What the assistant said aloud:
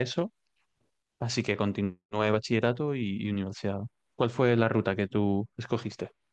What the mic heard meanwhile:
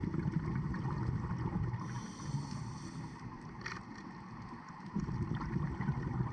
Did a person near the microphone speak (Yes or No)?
No